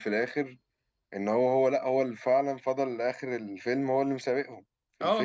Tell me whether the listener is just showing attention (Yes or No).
No